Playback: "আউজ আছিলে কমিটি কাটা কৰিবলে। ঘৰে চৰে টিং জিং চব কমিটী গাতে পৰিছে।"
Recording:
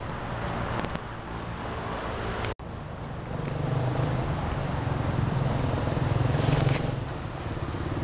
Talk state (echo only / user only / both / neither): neither